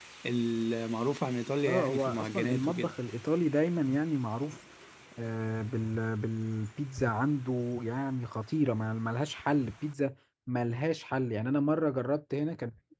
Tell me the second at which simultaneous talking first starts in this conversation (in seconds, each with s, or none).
1.6 s